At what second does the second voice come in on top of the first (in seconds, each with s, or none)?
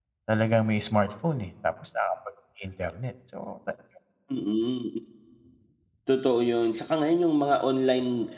none